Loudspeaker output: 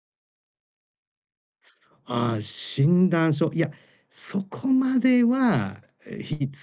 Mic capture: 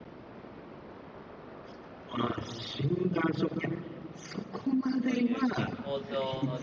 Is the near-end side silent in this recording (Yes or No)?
No